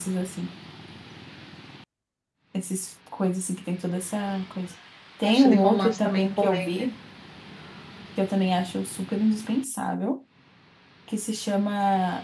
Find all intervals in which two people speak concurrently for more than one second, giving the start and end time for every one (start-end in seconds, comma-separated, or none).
5.2-6.7